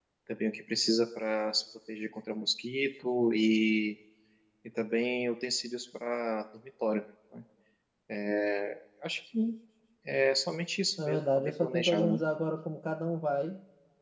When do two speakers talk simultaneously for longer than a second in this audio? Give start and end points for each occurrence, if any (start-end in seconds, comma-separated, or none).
11.0-12.2